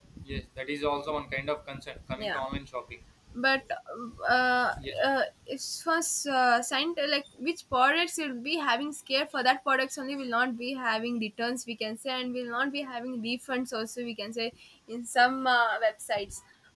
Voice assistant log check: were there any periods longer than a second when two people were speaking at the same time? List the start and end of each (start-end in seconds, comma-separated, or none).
none